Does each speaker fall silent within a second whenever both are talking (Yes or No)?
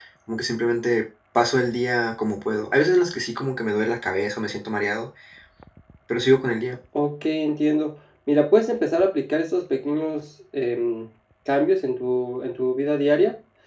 Yes